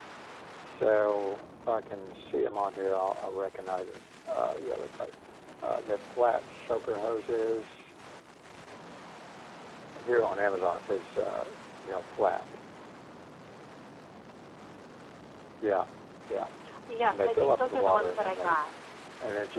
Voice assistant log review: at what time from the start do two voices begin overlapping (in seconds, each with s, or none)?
17.1 s